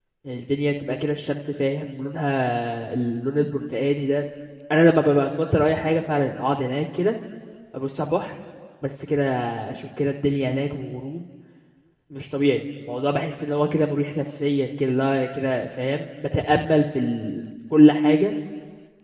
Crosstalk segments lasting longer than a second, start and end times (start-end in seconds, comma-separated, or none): none